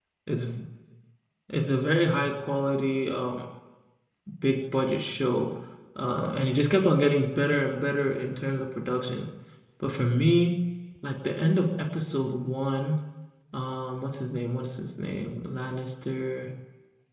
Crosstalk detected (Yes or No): No